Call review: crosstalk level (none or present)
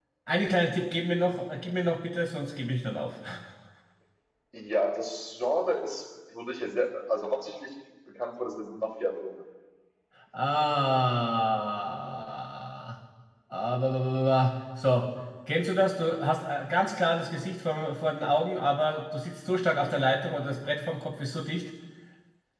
none